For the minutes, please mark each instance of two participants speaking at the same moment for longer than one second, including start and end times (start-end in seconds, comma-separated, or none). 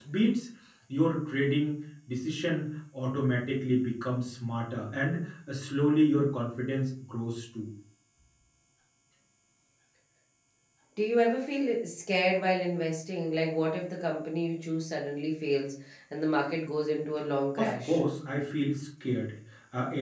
none